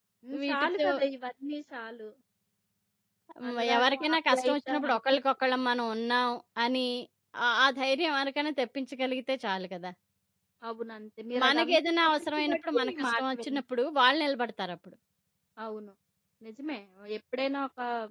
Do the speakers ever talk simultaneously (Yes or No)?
Yes